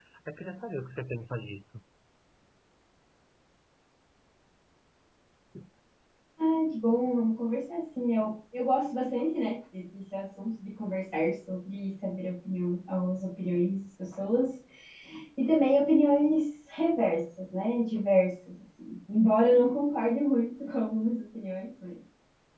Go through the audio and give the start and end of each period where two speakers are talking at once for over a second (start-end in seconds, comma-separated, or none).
none